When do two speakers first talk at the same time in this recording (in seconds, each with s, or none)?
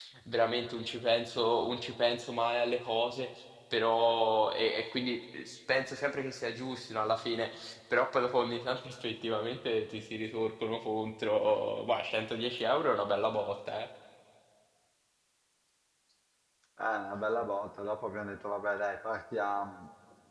none